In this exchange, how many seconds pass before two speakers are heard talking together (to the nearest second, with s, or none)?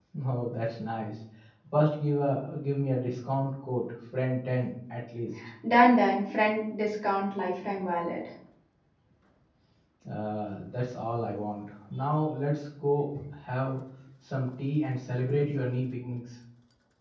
none